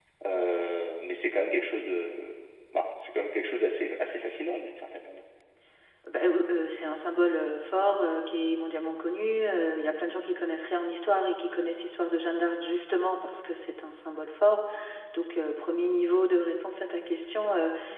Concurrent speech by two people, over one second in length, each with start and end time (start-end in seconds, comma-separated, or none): none